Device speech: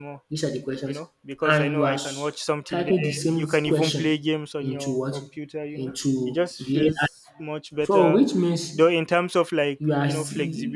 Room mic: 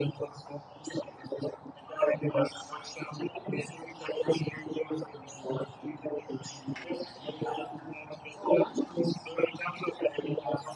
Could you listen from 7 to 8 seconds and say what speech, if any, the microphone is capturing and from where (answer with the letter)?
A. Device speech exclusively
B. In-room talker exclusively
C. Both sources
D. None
A